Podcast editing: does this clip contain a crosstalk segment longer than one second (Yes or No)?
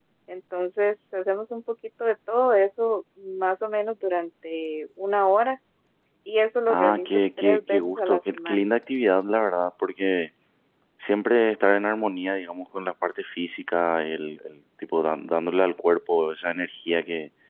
Yes